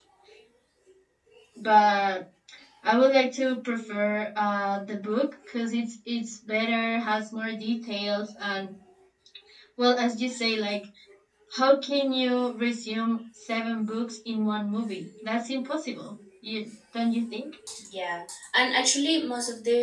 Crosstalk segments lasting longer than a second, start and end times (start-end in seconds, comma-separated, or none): none